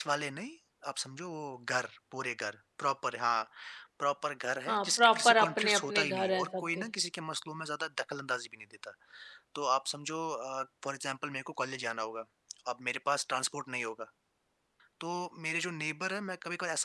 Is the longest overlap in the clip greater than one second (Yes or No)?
Yes